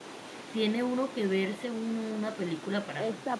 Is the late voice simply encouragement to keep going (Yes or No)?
No